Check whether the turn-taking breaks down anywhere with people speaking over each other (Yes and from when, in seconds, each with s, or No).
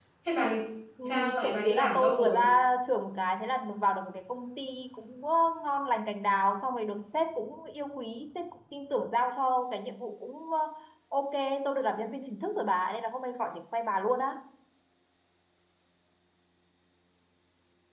Yes, from 1.0 s